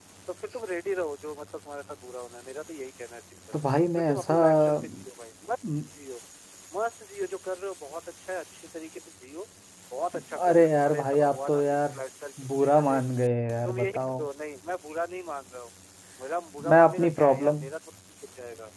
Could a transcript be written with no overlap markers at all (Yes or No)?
No